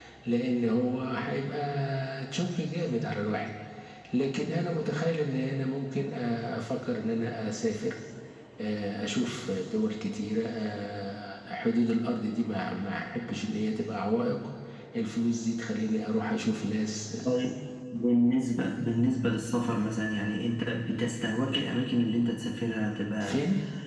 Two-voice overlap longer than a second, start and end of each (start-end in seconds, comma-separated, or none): none